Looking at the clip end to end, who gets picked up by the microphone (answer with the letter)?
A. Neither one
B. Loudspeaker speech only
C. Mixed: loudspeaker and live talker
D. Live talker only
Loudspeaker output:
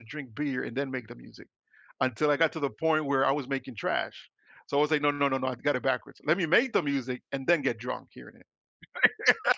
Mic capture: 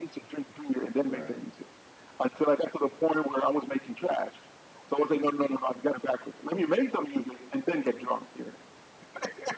C